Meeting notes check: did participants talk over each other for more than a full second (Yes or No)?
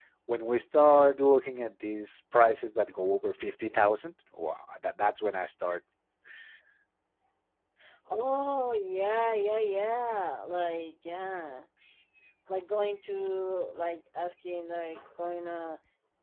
No